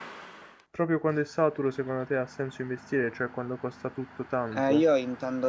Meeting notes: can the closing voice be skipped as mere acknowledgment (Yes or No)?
No